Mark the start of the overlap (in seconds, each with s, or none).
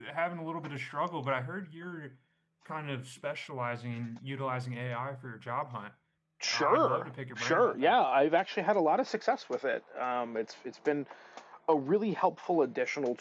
6.5 s